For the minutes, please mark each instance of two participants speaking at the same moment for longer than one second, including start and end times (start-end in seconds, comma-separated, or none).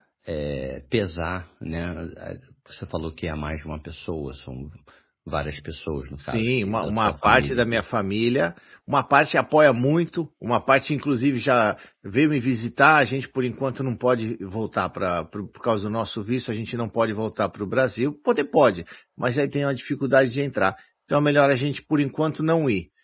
6.2-7.8